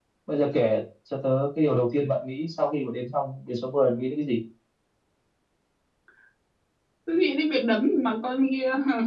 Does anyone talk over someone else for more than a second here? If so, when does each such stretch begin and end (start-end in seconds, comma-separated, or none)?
none